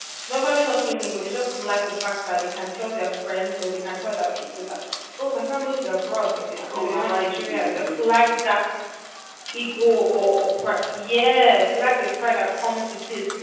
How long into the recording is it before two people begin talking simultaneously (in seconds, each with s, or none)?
6.5 s